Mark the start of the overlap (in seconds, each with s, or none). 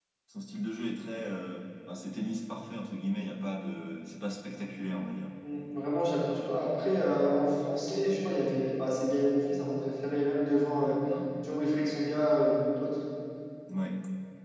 none